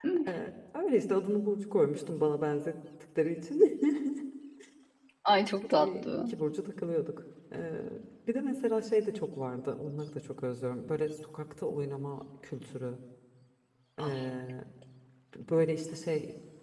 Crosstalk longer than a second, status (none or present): none